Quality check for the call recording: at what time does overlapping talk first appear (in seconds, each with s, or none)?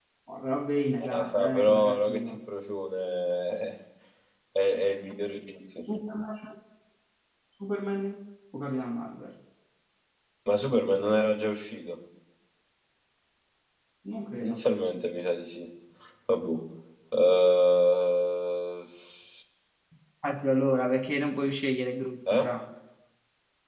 1.0 s